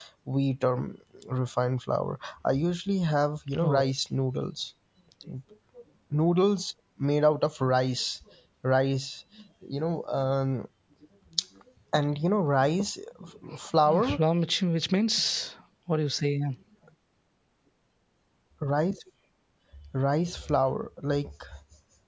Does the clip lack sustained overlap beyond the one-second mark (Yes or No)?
Yes